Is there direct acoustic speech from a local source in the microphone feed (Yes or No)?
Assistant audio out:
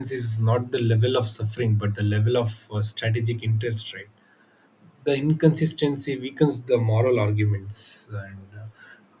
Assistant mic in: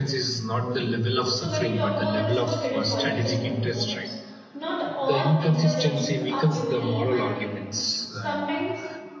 Yes